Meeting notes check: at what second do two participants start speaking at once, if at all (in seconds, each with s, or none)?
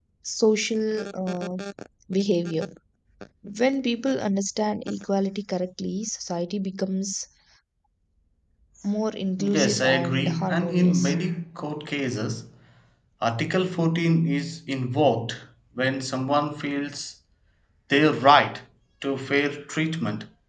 9.4 s